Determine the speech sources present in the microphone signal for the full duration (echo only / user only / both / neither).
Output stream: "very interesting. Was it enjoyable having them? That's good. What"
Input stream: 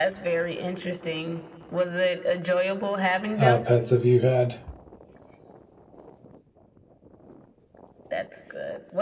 both